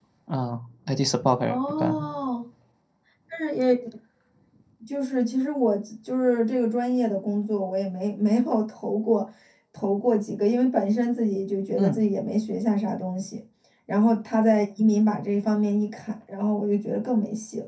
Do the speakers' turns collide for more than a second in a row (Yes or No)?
No